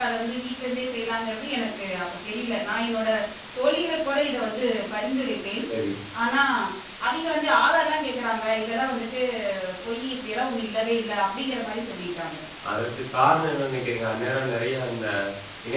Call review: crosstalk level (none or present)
none